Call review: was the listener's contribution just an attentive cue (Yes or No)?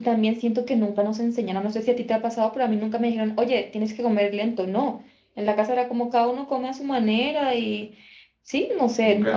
No